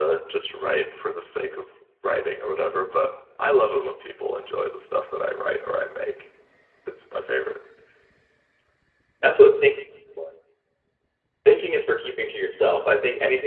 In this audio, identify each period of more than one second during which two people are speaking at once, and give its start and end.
none

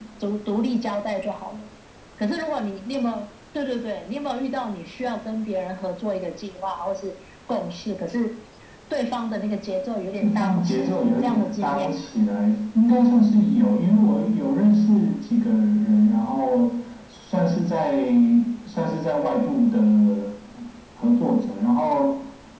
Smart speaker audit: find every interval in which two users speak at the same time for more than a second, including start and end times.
10.2-12.0

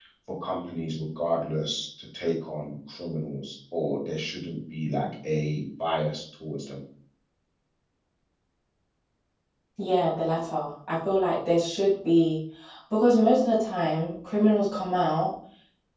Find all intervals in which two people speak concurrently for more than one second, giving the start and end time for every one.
none

